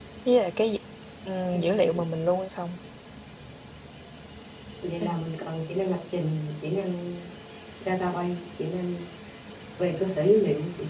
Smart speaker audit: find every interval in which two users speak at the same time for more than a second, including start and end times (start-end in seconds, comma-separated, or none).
none